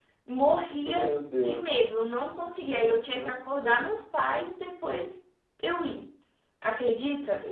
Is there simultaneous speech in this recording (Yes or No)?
Yes